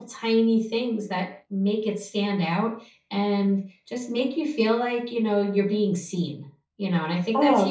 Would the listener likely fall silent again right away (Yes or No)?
No